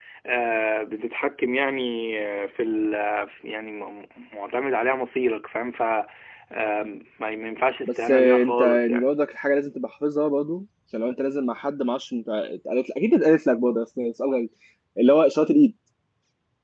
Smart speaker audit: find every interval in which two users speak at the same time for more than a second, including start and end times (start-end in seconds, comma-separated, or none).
7.8-9.1